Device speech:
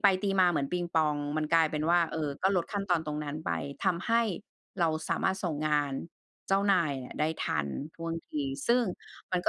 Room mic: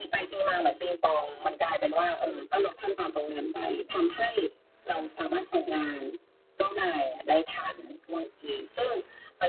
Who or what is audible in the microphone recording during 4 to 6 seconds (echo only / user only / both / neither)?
echo only